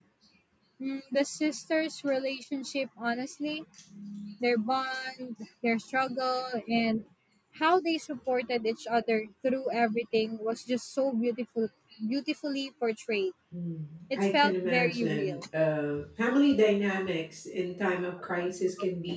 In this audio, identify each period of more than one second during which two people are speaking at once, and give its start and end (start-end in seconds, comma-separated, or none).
14.2-15.4